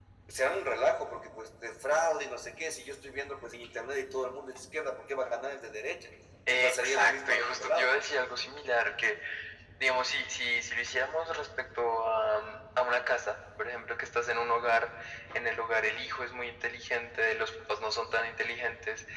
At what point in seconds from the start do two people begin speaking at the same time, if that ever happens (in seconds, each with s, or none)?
6.5 s